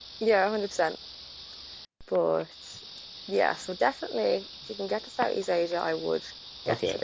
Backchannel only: No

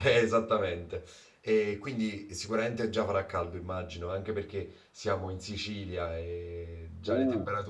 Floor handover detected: Yes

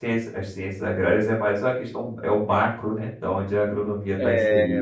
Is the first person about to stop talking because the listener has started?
Yes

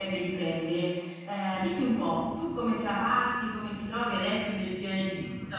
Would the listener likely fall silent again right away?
No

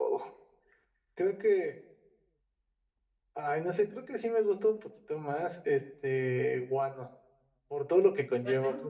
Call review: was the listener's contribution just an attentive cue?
Yes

